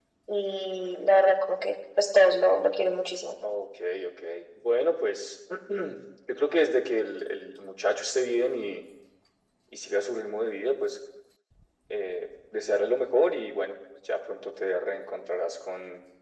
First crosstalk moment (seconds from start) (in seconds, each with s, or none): none